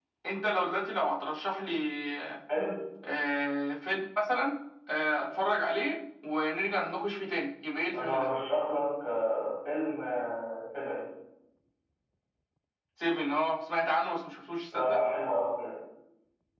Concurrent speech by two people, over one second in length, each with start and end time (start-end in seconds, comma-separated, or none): none